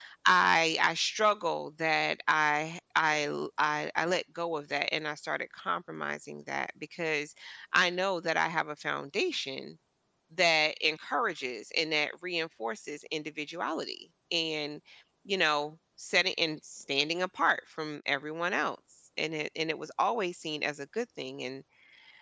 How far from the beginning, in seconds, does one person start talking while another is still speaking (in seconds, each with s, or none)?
none